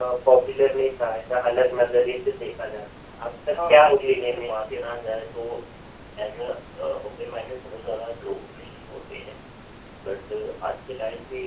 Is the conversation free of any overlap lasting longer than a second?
No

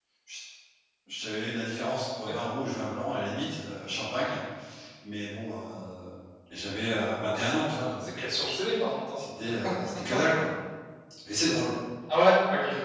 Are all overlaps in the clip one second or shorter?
Yes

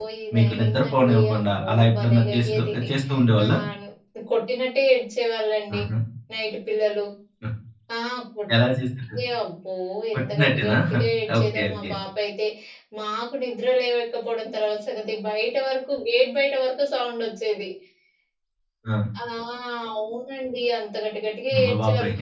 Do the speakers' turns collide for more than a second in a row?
Yes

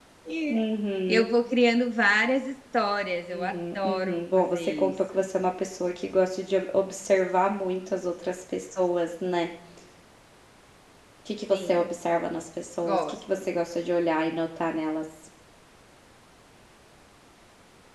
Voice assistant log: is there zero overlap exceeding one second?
No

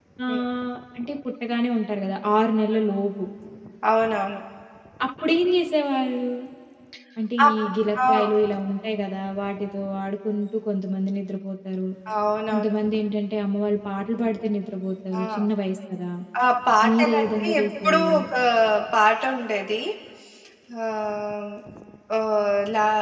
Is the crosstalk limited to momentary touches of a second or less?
No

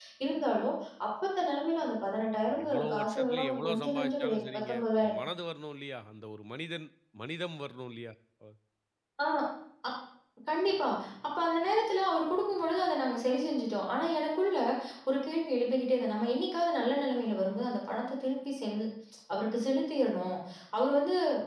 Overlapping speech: Yes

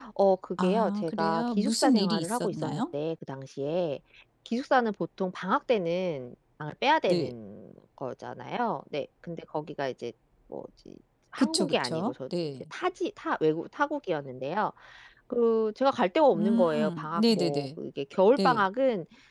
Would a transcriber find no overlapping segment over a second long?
No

